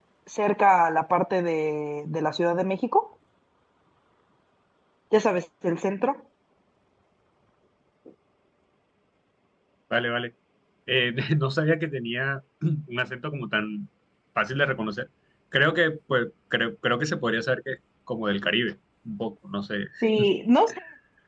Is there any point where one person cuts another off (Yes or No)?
No